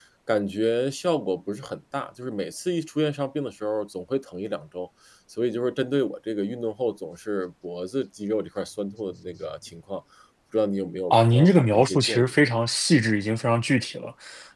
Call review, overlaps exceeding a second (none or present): present